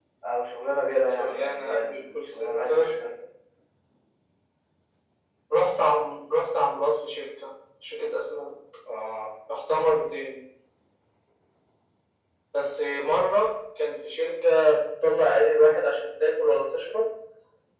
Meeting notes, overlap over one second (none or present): present